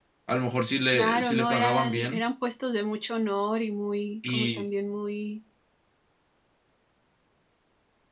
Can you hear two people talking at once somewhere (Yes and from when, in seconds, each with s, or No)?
Yes, from 0.9 s